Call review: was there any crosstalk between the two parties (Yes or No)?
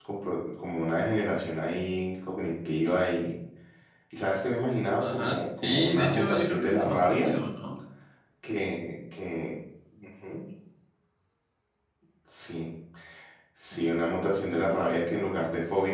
Yes